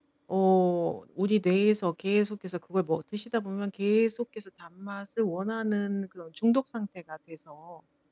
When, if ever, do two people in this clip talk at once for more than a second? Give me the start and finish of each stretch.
none

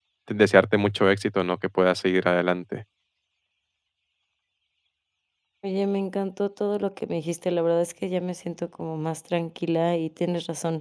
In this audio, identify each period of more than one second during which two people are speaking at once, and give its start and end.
none

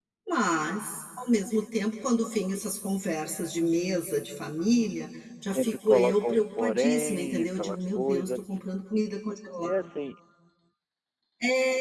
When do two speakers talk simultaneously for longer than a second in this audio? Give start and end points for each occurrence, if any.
5.5-8.4

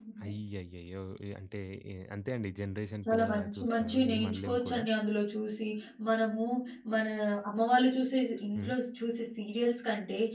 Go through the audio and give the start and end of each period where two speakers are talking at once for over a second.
3.0-4.8

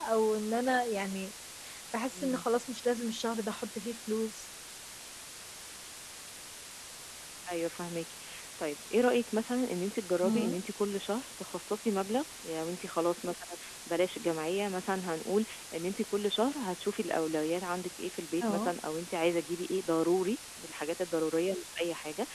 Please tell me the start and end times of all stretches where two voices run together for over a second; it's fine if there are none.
none

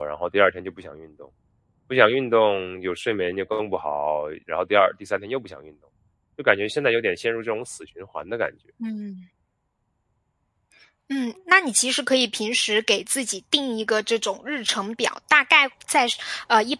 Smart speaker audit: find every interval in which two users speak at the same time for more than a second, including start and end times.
none

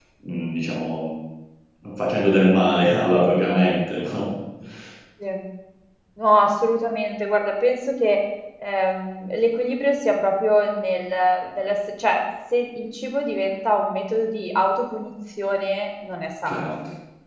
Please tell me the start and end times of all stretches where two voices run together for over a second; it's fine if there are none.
none

